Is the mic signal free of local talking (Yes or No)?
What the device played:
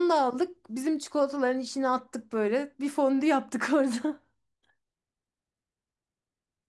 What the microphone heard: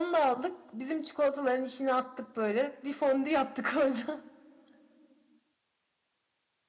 Yes